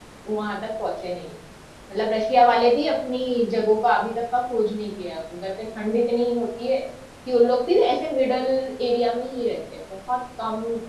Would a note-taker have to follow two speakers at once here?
No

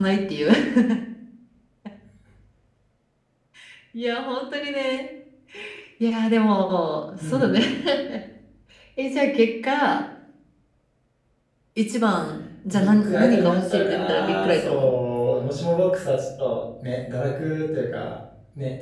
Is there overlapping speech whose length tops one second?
Yes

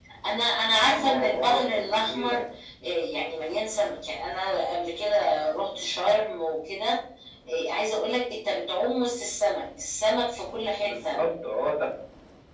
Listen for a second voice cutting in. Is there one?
Yes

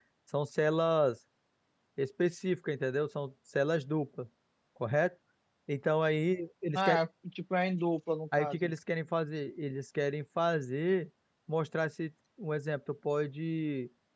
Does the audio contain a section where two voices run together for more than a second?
No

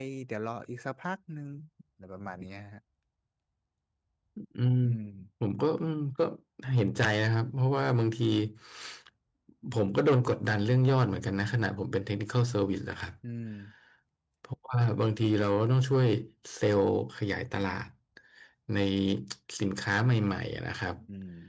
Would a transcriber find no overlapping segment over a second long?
Yes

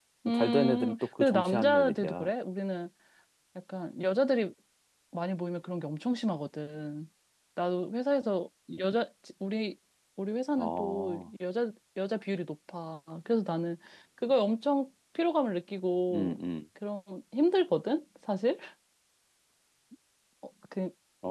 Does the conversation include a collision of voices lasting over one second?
Yes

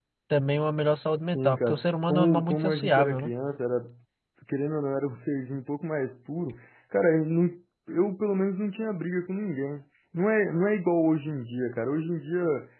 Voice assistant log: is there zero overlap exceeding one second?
No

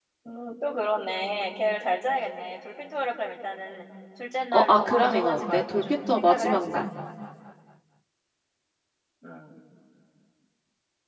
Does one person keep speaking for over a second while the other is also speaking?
Yes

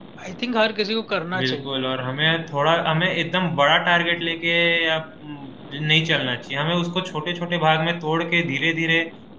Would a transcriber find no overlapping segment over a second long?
Yes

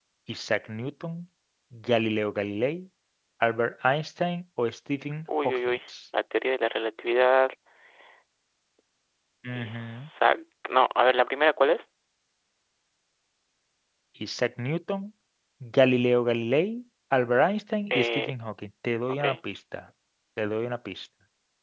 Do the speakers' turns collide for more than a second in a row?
No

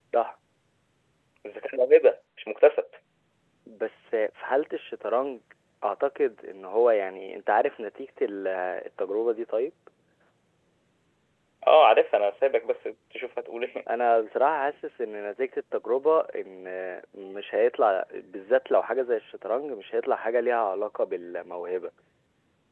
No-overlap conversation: Yes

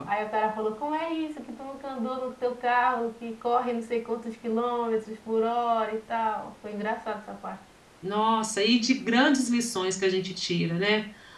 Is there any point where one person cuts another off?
No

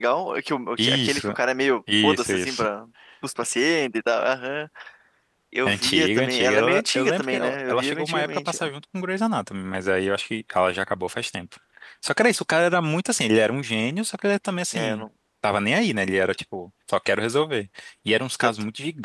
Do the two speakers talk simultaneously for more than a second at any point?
Yes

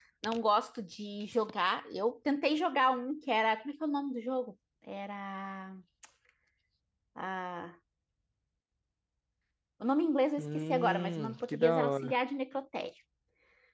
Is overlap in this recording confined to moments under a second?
No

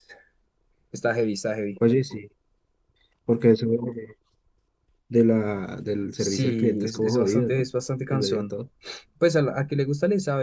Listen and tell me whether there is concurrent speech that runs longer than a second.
Yes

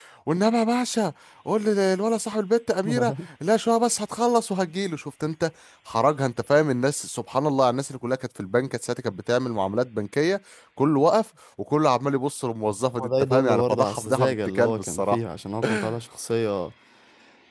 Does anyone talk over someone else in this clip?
Yes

